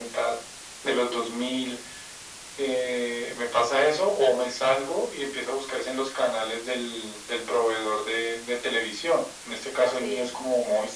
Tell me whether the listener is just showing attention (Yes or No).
Yes